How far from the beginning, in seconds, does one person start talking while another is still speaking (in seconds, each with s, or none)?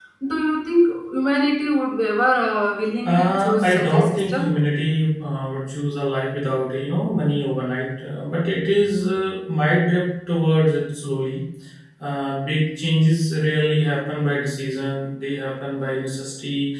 3.0 s